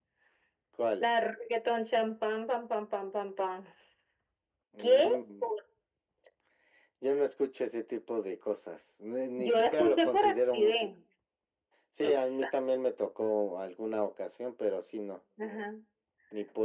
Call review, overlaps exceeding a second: present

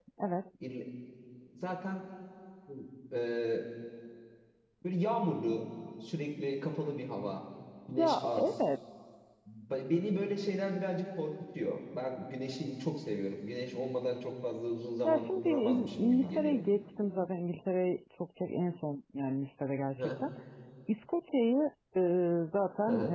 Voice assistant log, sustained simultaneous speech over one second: present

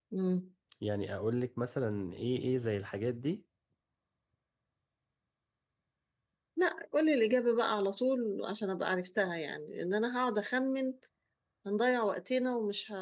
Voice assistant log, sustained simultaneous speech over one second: none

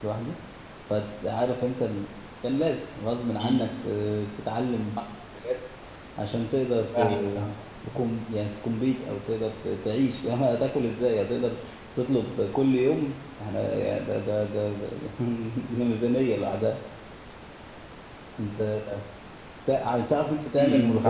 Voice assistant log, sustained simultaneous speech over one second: none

